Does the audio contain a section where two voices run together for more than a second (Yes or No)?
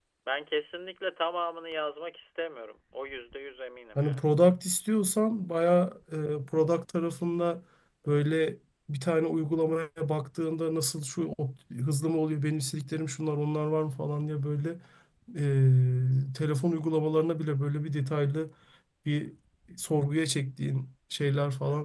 No